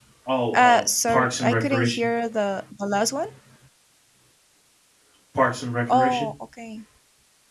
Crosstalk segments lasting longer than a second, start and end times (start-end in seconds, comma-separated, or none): 0.5-2.1